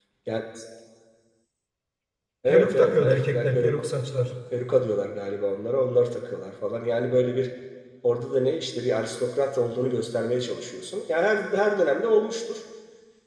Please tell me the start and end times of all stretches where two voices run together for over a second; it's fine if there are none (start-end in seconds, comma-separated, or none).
2.5-3.8